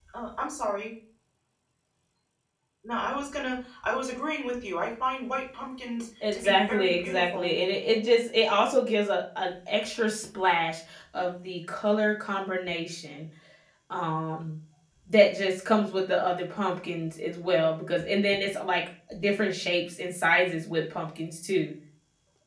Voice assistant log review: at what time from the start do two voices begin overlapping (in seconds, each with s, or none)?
6.2 s